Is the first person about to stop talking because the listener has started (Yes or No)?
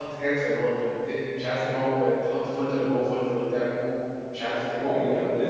Yes